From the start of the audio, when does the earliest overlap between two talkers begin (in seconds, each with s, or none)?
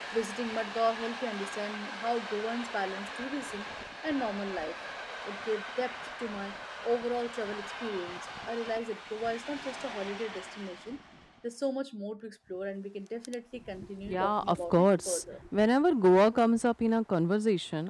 14.1 s